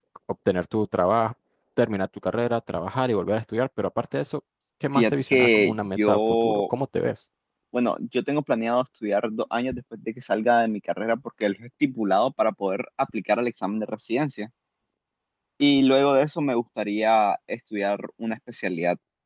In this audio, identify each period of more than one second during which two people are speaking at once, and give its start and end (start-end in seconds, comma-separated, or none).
4.9-6.7